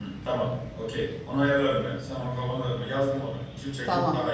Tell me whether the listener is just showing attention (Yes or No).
No